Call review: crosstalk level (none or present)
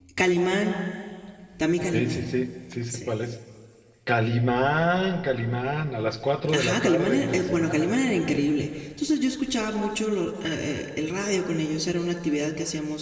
present